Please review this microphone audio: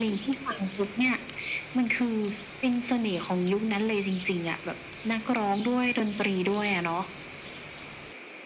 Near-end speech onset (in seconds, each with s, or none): none